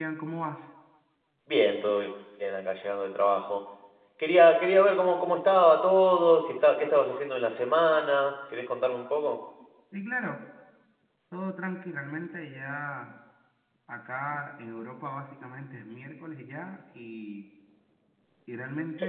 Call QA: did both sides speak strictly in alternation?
Yes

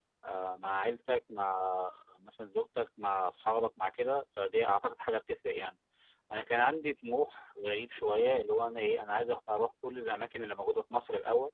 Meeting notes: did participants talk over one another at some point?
No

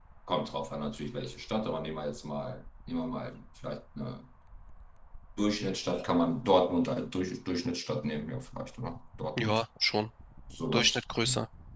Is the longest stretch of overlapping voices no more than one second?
Yes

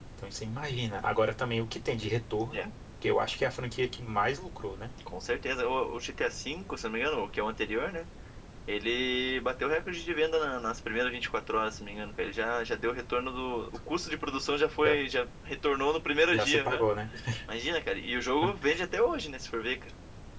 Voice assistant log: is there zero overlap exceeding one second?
Yes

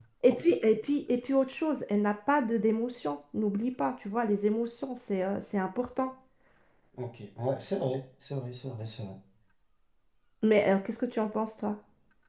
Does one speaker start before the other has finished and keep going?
No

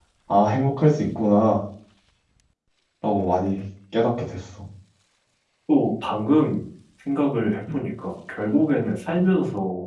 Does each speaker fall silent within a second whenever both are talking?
Yes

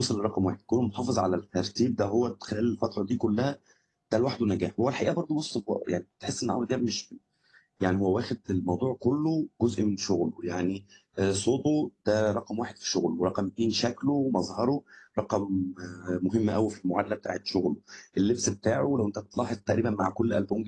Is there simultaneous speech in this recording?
No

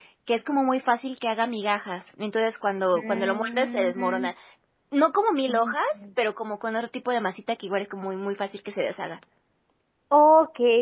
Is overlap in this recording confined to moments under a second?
No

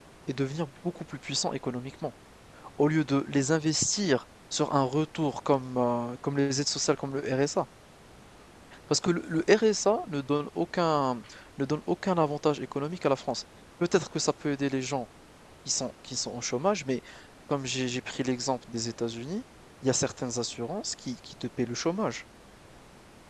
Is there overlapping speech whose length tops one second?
No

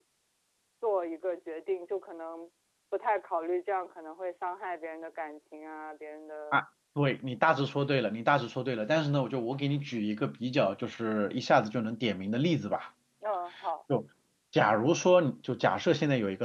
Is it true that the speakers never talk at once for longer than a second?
Yes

